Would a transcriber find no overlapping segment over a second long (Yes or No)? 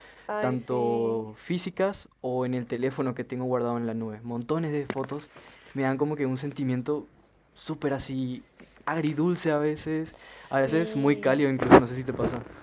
No